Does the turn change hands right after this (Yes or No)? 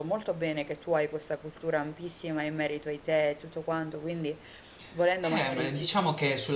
Yes